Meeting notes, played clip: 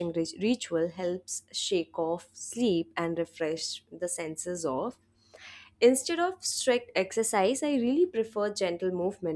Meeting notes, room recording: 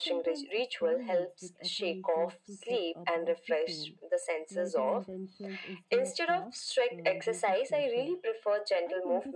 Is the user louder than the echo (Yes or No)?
No